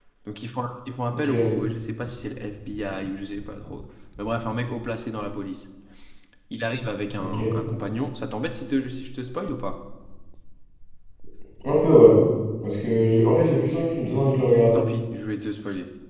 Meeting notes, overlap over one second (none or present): none